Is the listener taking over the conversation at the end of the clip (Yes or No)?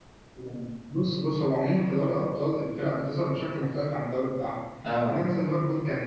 No